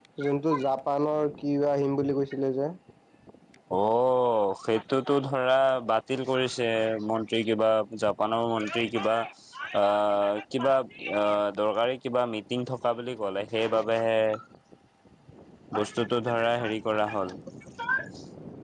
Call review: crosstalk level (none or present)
none